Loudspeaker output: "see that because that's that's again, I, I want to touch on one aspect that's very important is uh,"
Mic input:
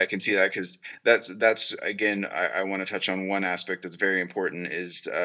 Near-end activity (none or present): none